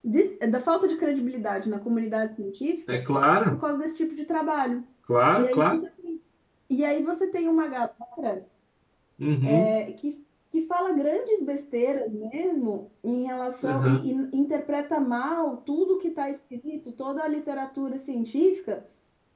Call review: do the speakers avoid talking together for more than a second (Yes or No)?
Yes